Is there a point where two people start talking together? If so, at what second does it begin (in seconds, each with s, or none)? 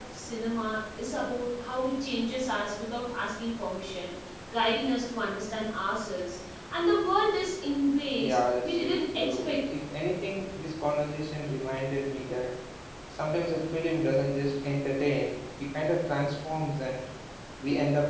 8.2 s